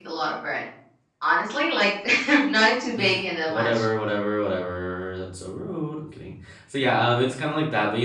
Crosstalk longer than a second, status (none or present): none